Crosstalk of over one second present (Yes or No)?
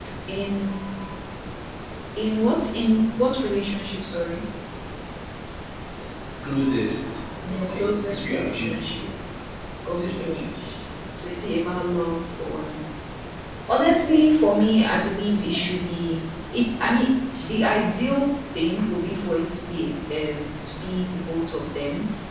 Yes